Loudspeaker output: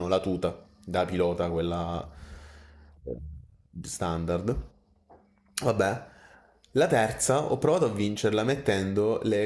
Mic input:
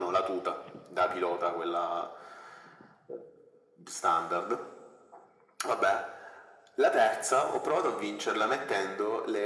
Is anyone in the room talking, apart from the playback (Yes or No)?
No